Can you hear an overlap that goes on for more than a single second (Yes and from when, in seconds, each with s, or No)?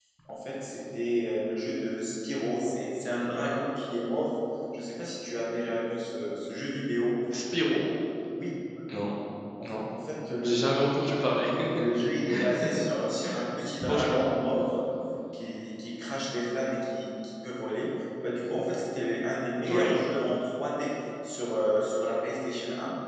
No